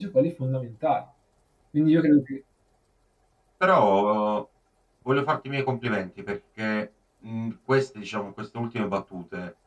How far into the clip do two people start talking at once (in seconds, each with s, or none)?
none